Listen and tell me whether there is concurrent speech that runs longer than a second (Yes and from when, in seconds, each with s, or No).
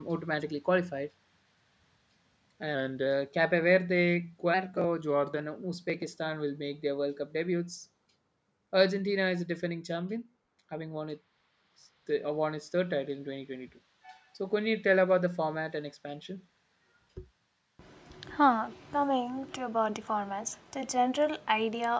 No